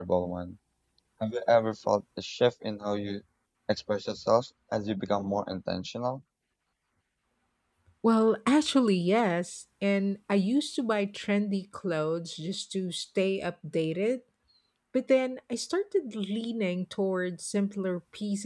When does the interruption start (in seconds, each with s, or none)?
none